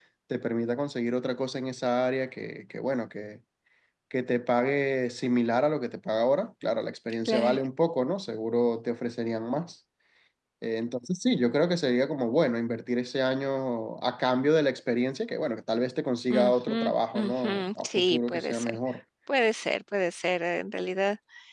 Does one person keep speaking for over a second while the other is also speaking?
Yes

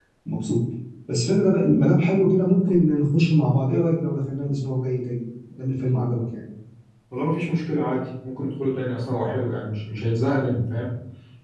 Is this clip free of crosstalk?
Yes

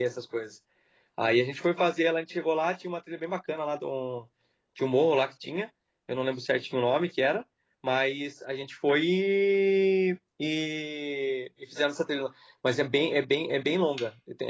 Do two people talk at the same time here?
No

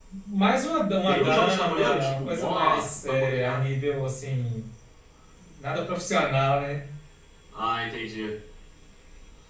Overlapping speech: Yes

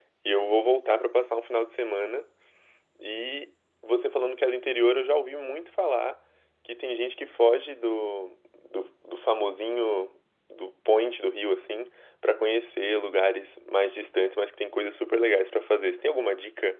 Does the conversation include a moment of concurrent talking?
No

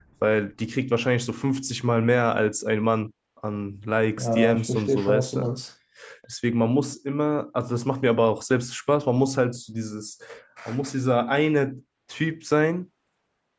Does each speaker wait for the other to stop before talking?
No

